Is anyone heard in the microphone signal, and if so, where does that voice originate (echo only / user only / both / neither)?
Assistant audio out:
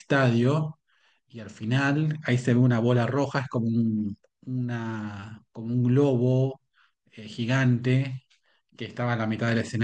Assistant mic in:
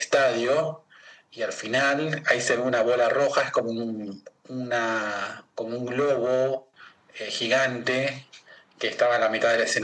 echo only